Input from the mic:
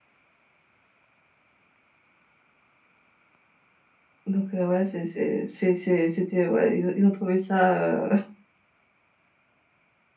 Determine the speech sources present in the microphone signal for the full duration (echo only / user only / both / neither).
user only